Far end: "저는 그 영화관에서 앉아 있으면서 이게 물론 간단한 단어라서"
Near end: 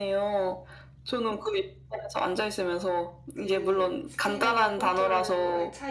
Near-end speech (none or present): present